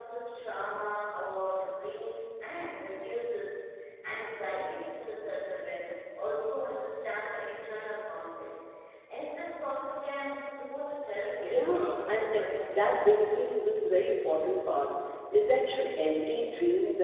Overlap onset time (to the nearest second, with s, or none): 11 s